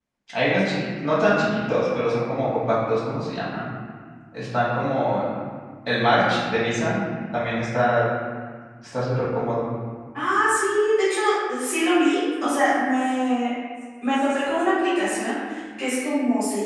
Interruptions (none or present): none